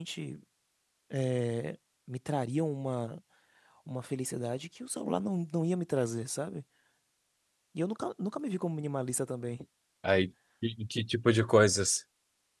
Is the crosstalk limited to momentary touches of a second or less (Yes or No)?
Yes